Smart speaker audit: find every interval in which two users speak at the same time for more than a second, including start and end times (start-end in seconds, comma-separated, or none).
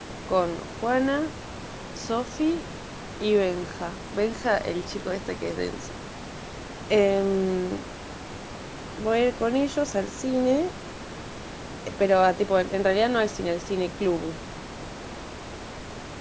none